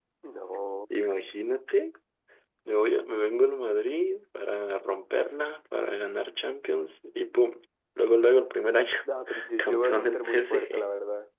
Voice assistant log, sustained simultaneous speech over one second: present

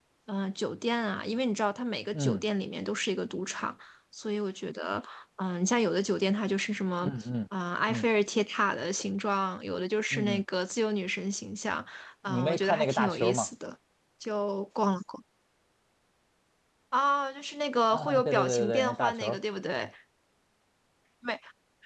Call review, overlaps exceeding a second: present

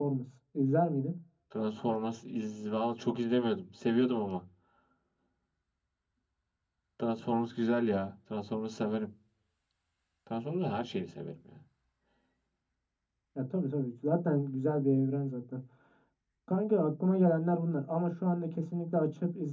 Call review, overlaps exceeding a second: none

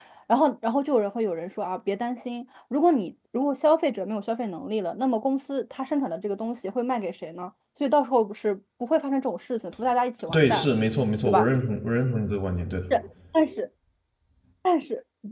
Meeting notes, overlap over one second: none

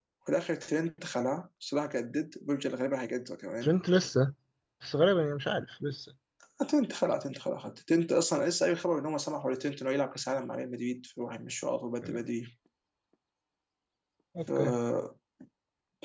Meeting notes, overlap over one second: none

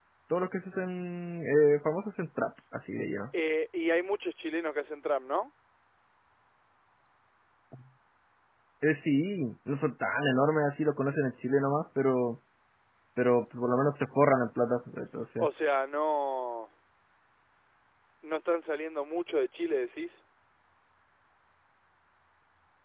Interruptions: none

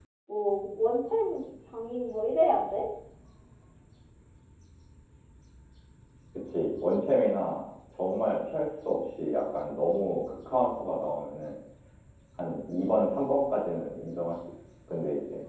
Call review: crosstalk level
none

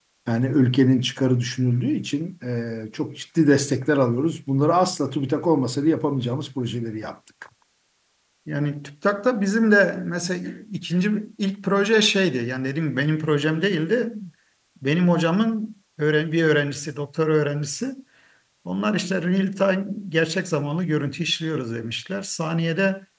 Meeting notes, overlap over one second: none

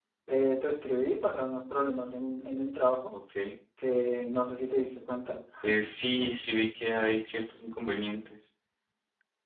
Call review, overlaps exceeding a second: none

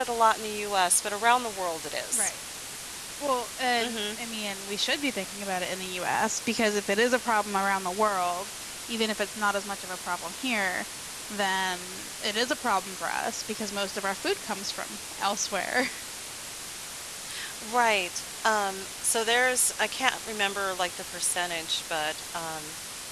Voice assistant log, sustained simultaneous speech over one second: none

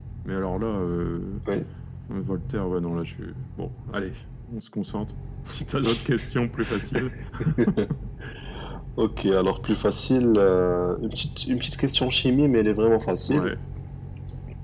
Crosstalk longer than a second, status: none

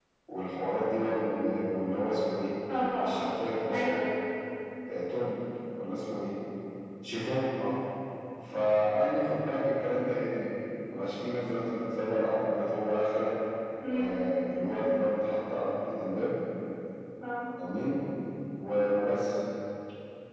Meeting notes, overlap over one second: none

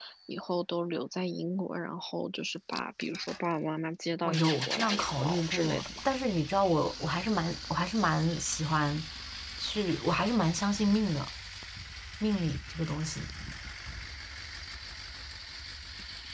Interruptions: present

